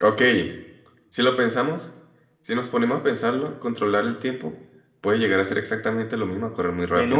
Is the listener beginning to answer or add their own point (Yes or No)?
Yes